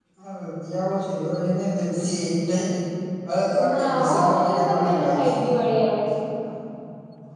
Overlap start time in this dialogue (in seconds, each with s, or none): 3.7 s